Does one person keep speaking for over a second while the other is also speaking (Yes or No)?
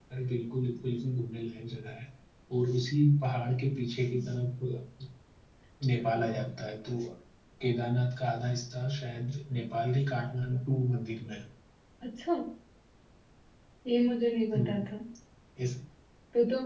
No